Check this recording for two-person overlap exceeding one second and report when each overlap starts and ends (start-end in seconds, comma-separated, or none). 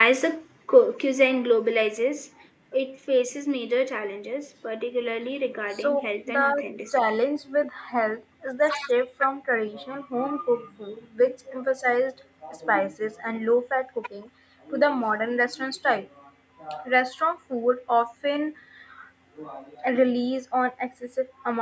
5.8-7.0